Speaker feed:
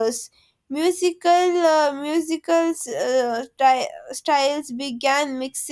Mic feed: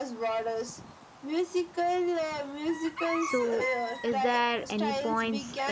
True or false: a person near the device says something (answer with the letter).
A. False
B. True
B